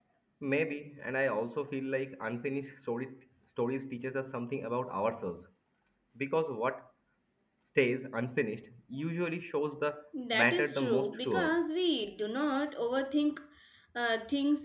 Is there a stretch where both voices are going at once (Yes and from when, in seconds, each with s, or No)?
Yes, from 10.1 s